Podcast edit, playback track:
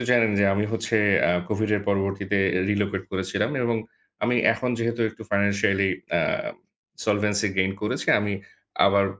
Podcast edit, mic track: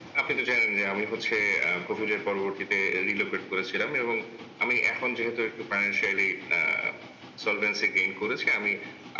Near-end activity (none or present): none